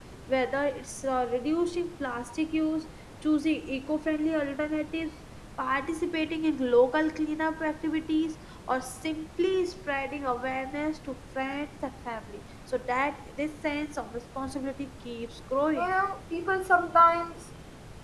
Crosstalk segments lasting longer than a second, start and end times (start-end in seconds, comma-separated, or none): none